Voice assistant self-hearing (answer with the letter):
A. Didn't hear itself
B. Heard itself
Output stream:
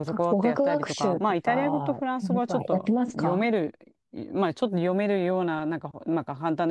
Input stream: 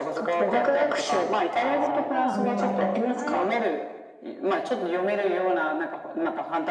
B